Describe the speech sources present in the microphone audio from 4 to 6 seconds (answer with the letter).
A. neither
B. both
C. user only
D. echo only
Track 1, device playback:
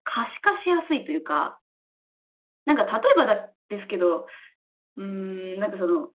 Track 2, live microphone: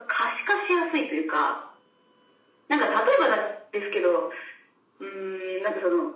D